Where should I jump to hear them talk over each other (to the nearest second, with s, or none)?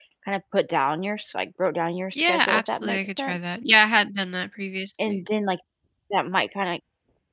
2 s